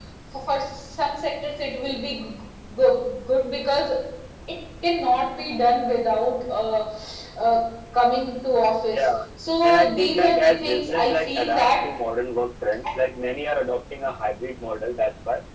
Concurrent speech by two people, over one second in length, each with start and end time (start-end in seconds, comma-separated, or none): 9.6-11.9